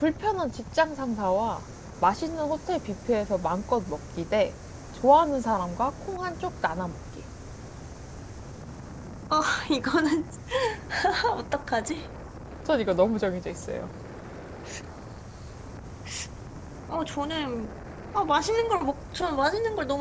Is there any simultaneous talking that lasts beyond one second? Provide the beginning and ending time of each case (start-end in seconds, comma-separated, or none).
none